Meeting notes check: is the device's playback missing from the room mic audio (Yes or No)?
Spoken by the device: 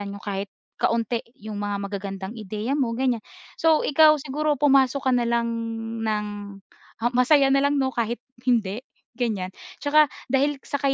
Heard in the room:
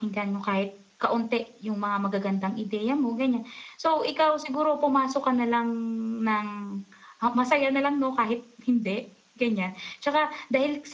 No